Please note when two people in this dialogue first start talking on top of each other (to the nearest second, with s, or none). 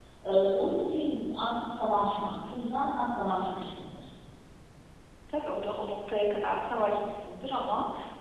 none